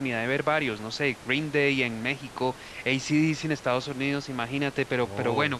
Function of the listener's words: listening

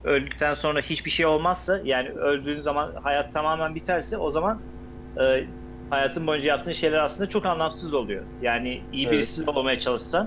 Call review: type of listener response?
listening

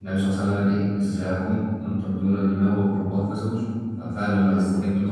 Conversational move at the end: listening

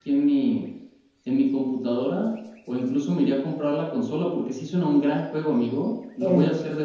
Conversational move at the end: taking over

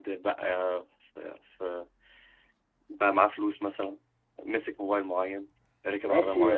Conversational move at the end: taking over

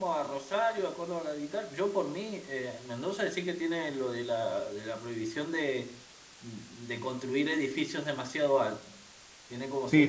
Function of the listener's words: taking over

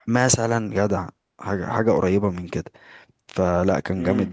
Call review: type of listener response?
listening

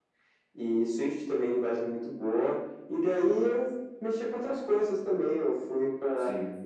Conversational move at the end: listening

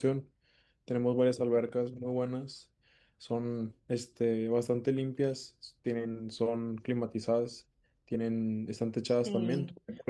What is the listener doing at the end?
taking over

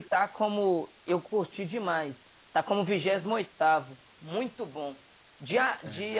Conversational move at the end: listening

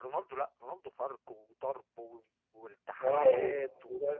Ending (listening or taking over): taking over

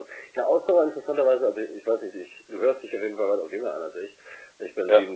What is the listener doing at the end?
listening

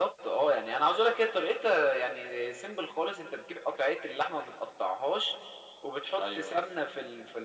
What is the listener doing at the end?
listening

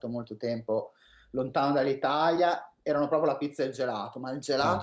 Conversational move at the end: listening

